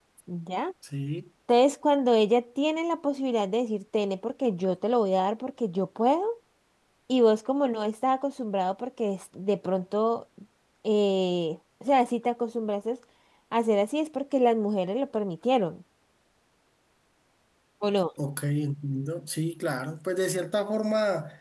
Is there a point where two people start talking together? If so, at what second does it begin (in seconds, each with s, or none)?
none